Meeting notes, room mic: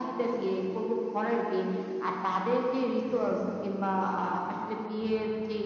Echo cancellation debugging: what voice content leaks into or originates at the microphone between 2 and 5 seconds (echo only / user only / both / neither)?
echo only